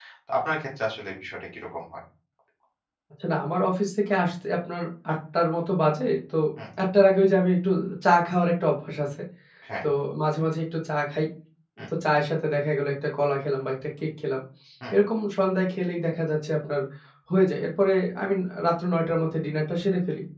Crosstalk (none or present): none